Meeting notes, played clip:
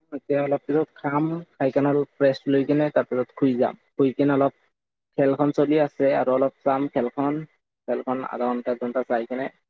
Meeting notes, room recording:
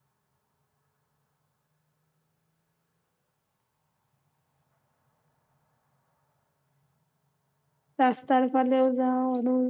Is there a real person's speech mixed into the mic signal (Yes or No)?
Yes